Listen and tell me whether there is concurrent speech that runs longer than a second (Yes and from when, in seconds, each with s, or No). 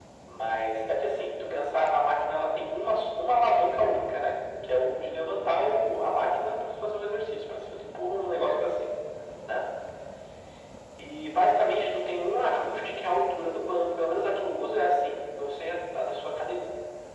No